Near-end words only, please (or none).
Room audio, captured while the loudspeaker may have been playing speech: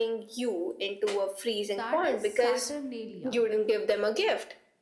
that is saturnalia